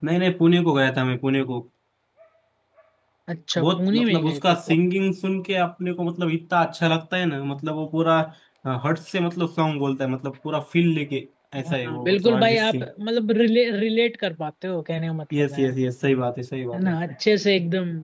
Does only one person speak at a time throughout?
No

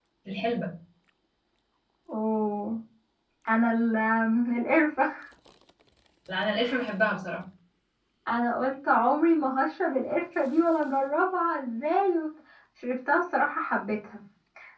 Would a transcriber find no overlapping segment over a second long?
Yes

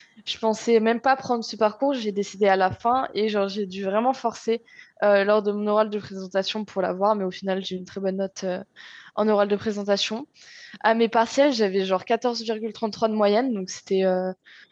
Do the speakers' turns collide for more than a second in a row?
No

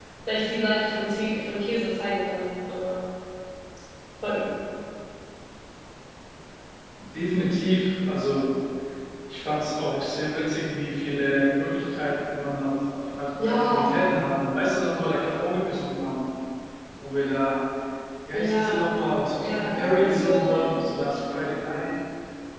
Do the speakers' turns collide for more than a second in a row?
Yes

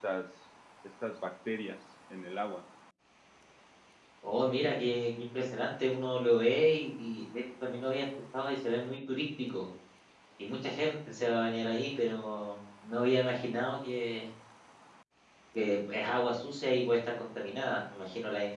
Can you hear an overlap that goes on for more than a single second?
No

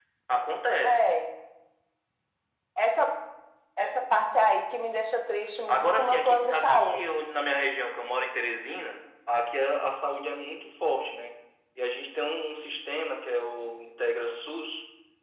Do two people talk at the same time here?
Yes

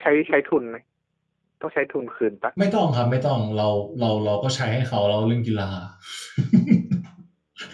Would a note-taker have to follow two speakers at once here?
No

